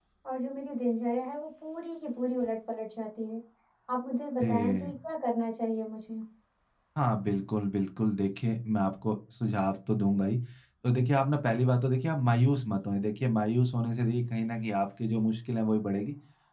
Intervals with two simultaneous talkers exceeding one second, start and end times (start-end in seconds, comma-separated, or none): none